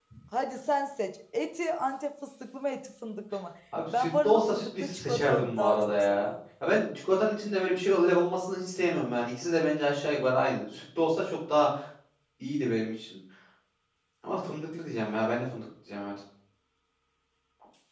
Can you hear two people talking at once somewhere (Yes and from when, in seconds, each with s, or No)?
Yes, from 4.0 s